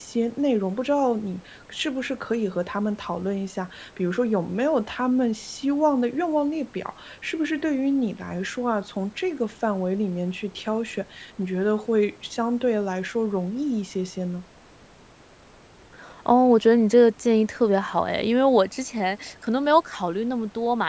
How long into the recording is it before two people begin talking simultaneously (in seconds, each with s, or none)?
none